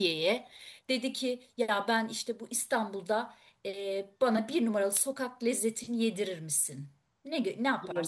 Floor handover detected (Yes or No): Yes